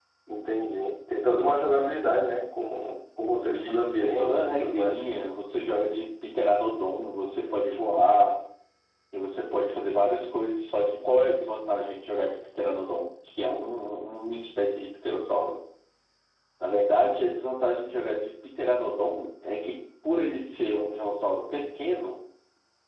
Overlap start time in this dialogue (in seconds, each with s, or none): 3.4 s